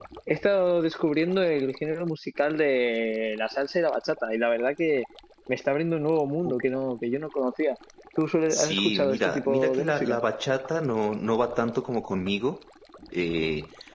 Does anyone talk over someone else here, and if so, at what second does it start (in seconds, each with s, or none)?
8.5 s